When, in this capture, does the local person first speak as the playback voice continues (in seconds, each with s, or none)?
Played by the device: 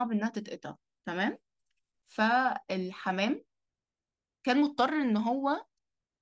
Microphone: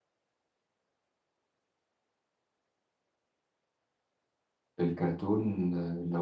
4.8 s